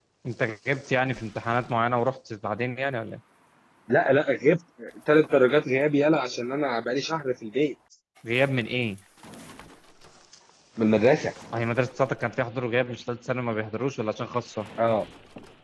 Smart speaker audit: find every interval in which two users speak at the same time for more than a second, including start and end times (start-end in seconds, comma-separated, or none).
none